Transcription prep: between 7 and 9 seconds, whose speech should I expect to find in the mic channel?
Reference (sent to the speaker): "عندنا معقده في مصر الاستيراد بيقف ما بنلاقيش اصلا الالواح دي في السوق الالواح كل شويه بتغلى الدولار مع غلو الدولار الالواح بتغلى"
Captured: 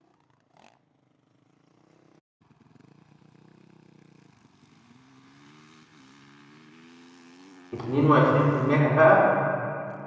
user only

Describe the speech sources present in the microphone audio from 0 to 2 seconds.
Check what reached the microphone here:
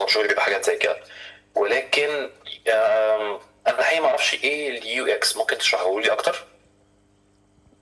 echo only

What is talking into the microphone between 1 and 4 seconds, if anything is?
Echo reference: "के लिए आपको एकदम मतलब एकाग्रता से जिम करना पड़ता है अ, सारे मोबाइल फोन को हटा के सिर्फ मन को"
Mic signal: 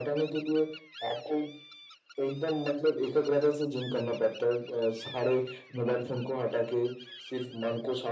echo only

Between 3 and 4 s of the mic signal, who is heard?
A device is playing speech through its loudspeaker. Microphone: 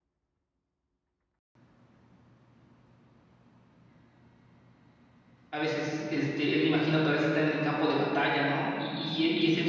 neither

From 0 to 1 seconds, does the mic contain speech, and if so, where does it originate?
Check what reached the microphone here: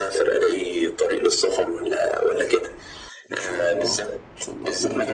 echo only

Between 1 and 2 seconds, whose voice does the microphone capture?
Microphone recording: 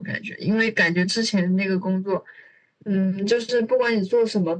echo only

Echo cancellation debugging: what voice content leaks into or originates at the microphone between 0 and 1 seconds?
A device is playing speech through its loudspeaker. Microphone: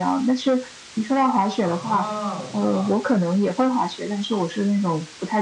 echo only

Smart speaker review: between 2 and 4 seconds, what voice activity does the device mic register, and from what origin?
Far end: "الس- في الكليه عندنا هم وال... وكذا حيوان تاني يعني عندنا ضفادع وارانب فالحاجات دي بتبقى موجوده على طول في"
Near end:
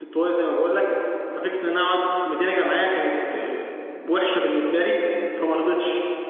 user only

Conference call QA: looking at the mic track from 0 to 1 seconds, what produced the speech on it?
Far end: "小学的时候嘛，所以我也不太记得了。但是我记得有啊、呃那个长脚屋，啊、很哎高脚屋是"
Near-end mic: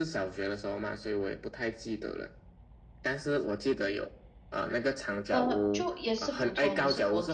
echo only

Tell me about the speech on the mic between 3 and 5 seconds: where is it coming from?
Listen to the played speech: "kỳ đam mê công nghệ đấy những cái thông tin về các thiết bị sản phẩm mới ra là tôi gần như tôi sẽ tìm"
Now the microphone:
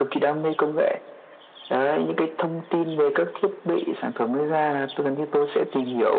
echo only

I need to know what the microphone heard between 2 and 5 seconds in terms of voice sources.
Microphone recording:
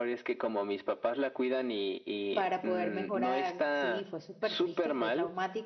both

